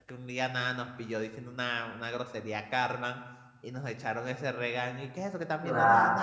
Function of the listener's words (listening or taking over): listening